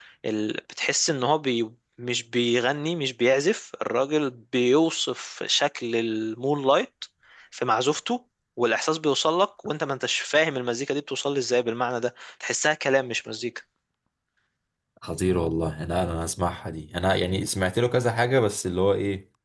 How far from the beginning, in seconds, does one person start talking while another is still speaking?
none

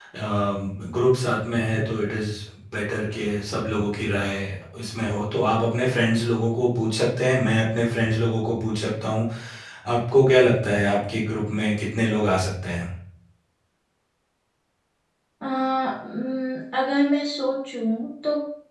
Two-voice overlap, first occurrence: none

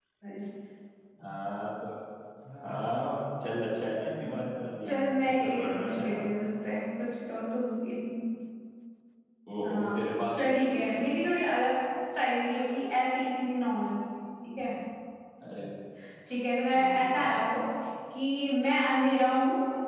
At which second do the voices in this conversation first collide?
4.8 s

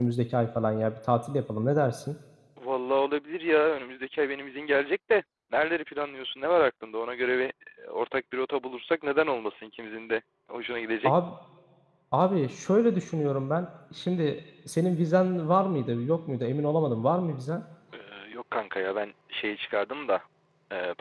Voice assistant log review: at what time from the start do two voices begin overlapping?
none

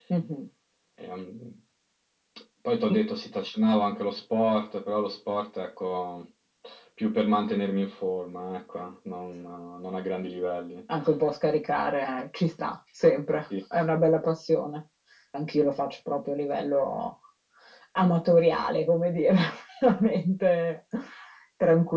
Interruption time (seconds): none

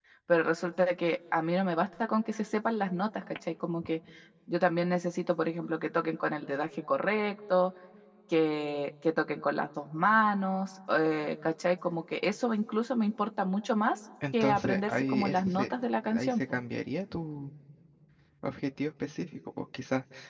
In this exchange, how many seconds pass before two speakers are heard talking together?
14.2 s

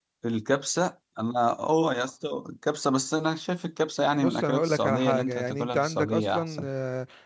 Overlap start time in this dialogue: 4.2 s

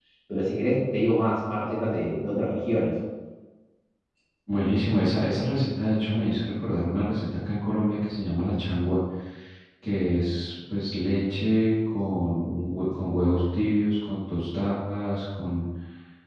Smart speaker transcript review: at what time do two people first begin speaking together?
none

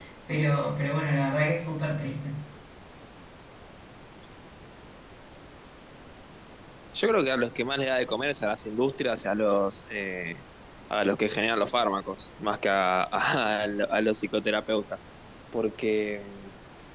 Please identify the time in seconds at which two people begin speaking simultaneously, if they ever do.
none

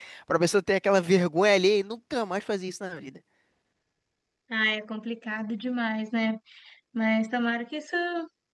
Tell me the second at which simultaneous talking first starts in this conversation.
none

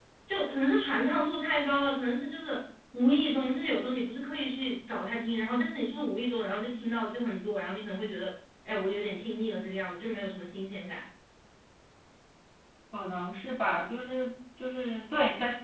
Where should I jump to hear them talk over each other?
none

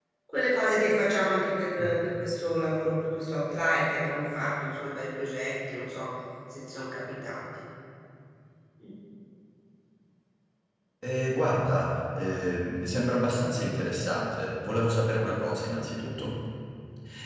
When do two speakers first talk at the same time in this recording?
none

